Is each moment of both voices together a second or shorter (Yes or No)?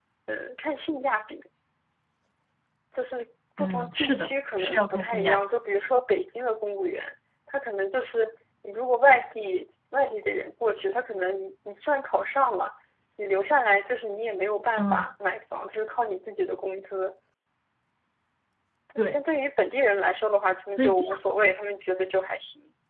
No